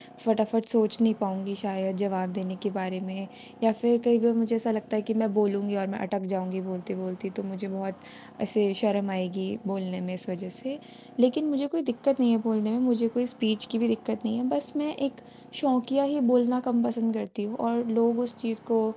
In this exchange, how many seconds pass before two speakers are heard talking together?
none

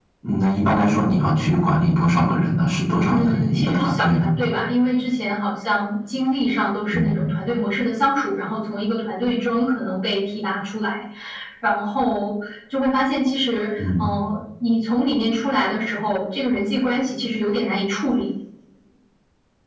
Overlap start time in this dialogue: 3 s

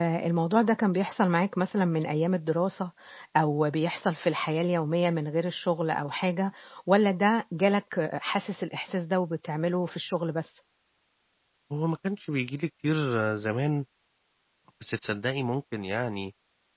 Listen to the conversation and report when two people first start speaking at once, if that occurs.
none

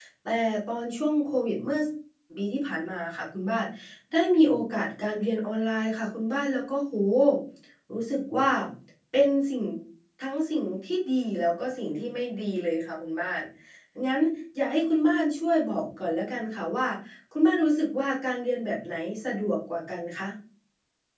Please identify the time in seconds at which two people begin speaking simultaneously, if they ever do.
none

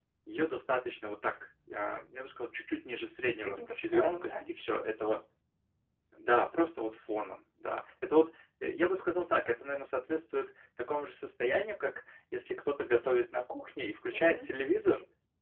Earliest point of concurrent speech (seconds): 3 s

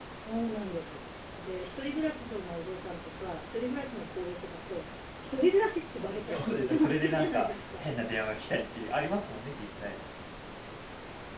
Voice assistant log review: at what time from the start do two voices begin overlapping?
6 s

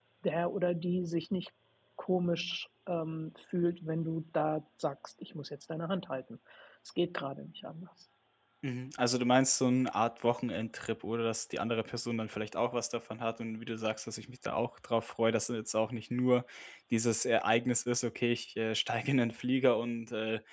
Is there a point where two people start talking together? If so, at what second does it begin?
none

